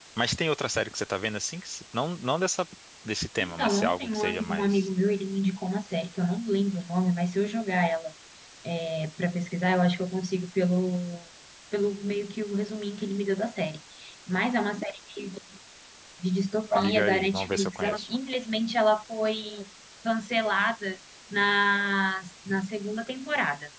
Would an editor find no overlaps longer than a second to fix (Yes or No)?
No